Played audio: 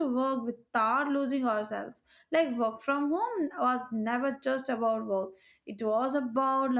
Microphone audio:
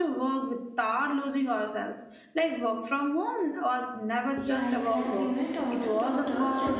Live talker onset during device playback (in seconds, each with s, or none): 4.3 s